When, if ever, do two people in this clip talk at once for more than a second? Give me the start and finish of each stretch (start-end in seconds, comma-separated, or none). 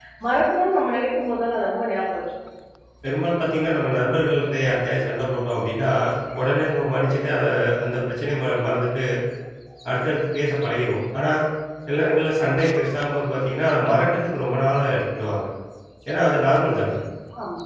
none